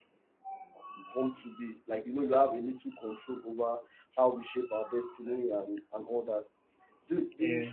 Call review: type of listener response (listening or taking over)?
listening